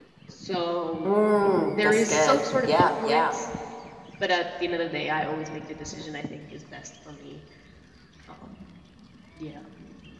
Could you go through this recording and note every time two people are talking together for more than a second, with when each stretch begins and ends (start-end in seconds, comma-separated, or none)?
1.7-3.3